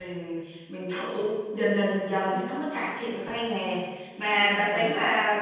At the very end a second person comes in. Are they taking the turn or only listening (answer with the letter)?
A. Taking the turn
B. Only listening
B